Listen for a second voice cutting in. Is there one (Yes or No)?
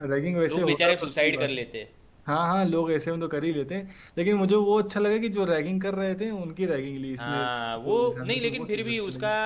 Yes